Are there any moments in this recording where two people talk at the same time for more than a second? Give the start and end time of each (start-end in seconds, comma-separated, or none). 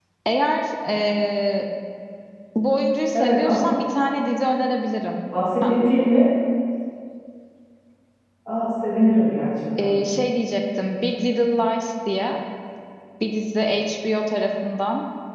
none